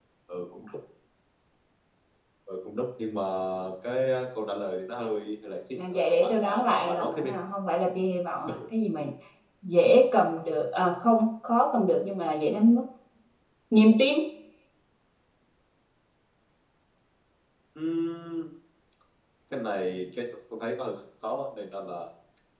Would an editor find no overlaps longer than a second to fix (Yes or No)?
No